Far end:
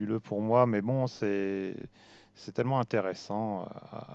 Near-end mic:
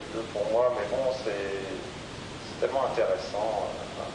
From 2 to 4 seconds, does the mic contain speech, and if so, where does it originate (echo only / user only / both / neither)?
echo only